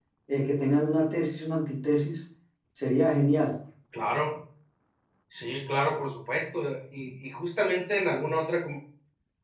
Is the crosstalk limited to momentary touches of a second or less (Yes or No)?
Yes